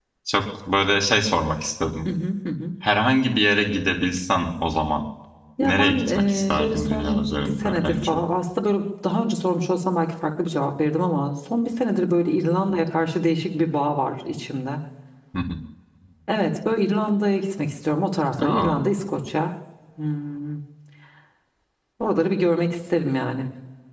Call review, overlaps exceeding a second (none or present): present